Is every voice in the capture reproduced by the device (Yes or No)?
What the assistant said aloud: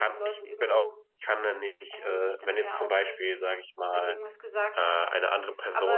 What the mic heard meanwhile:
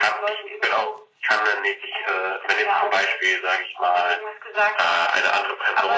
Yes